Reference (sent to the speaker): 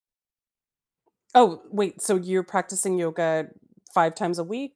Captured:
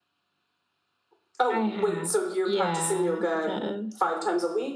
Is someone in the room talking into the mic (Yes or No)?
Yes